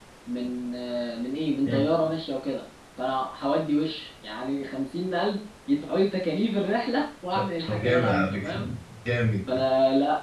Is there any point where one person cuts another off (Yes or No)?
Yes